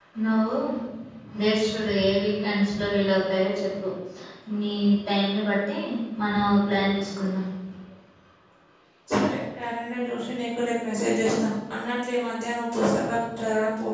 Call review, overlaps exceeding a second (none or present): none